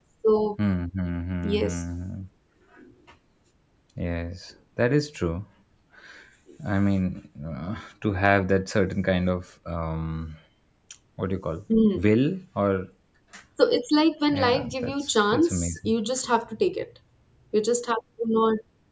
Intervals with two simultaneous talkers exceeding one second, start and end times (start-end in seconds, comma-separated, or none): 14.3-15.9